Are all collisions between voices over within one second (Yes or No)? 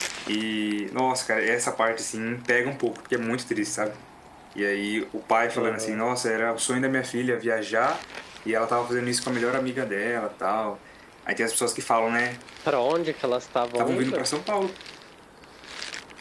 Yes